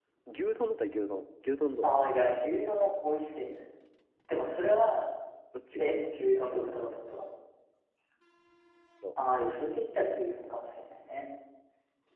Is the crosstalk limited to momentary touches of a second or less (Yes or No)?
Yes